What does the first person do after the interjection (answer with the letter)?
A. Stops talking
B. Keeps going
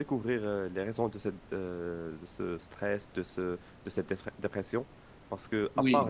B